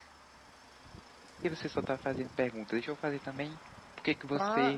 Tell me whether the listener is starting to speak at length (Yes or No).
Yes